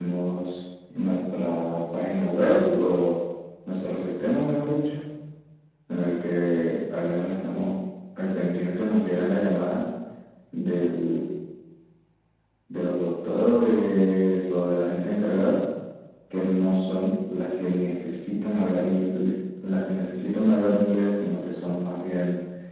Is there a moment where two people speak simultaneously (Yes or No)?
No